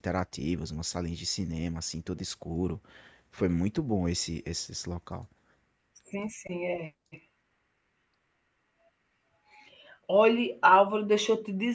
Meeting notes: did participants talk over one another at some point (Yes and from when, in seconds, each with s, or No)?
No